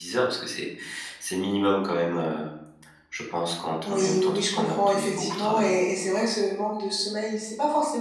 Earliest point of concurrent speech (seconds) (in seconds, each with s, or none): 3.9 s